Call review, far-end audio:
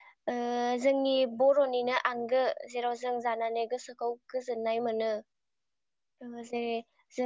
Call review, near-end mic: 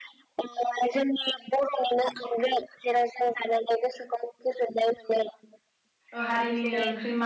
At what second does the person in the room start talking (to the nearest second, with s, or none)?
6 s